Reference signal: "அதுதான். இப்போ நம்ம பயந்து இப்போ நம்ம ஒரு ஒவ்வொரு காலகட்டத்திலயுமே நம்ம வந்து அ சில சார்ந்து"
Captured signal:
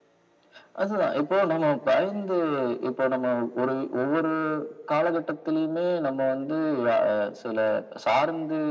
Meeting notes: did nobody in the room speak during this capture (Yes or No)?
Yes